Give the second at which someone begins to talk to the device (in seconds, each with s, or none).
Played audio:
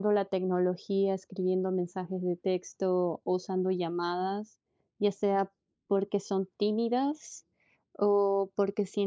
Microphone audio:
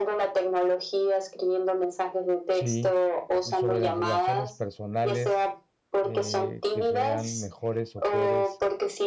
2.5 s